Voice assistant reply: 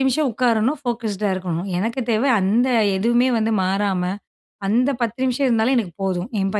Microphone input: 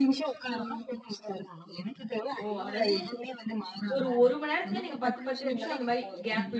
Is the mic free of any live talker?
No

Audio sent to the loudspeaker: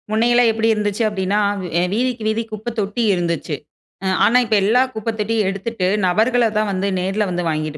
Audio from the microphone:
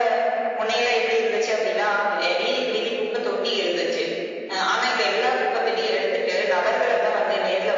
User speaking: No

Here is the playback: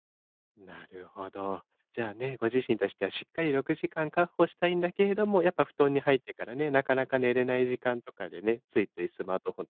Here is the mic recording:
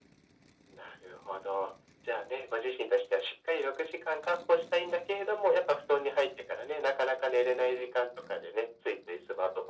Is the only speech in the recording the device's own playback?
Yes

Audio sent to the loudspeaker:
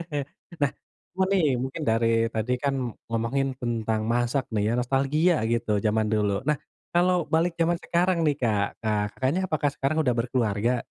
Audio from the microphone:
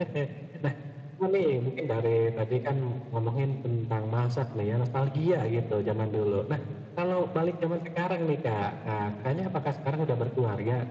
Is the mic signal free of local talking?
Yes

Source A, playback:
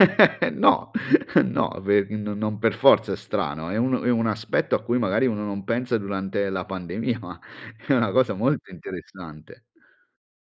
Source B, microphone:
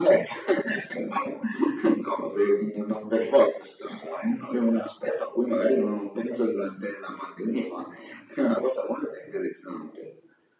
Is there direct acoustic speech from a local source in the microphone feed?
No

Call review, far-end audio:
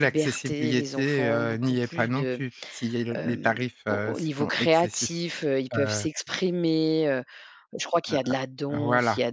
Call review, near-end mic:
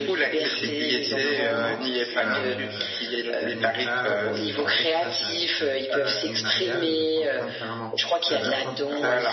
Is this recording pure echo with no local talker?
No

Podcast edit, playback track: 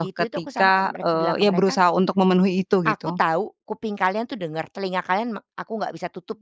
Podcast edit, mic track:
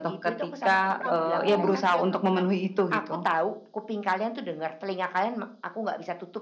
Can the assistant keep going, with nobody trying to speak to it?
No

